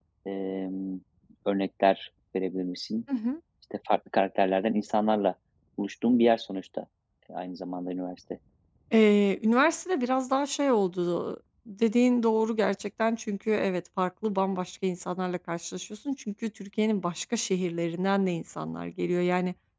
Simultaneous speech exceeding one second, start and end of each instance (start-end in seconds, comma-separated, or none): none